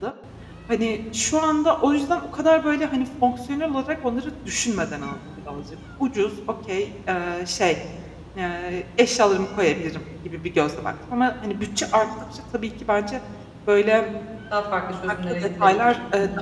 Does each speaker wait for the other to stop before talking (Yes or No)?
No